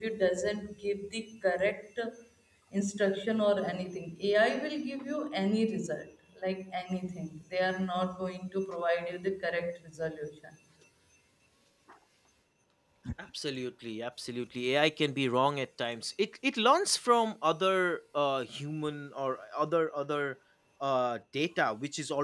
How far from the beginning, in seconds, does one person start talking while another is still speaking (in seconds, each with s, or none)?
none